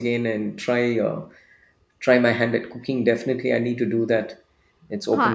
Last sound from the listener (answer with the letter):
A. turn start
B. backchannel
A